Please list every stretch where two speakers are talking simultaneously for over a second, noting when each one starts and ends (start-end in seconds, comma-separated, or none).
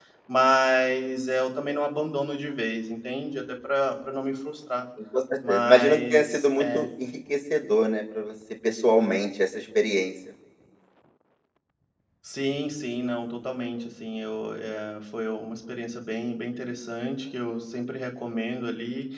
5.5-6.9